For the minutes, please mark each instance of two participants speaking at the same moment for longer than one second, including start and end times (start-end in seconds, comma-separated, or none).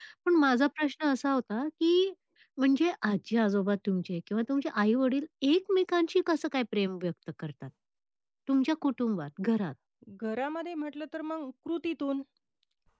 none